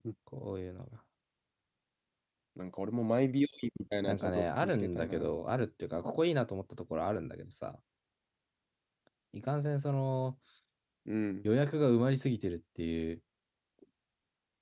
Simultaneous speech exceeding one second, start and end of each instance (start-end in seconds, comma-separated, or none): 4.0-5.3